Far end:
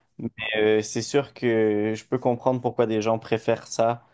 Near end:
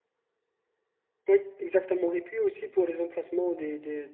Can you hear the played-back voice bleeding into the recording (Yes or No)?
No